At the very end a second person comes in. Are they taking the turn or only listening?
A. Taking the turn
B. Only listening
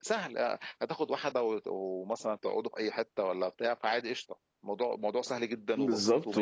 A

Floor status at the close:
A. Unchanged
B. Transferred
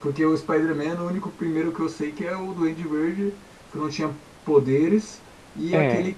A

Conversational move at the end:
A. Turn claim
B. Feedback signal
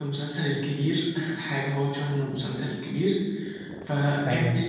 B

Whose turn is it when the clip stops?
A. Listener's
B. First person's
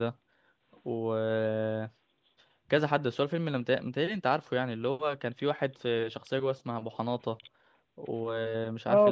A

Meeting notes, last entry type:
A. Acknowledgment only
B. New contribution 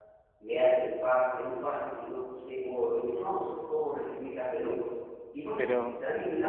A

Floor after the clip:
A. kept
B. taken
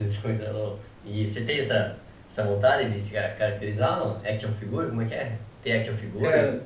B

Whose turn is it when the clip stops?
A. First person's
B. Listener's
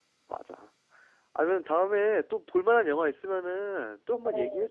B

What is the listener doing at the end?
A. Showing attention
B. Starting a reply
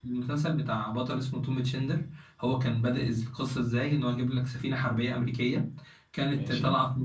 A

